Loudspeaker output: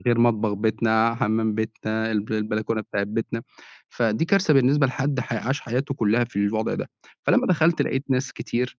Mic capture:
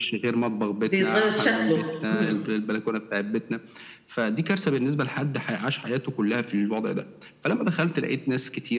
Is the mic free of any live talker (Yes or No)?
No